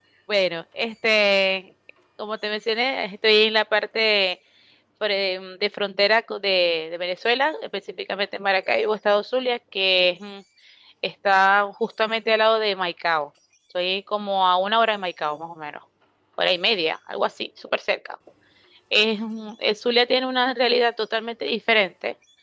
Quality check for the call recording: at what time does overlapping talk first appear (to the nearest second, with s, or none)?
none